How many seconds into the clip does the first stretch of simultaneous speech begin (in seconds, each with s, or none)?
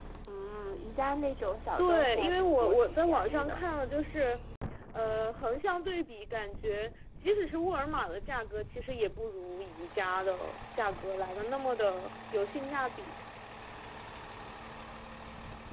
1.8 s